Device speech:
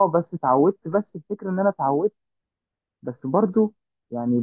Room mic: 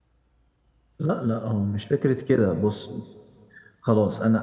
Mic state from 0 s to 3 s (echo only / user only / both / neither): user only